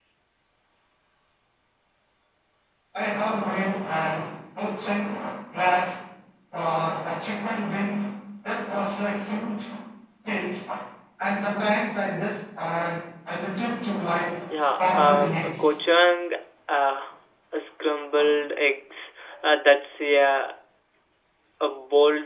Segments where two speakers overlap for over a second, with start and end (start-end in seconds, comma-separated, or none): 14.5-15.8